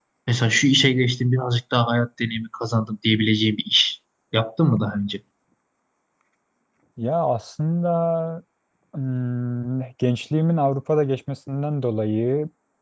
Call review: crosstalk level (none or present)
none